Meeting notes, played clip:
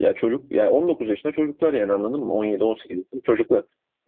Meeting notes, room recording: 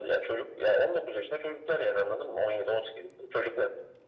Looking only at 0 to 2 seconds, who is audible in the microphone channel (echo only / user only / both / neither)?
echo only